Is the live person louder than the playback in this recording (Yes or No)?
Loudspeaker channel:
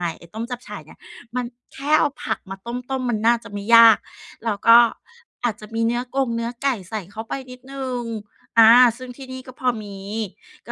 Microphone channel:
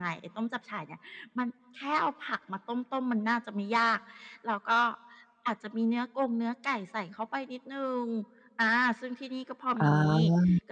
Yes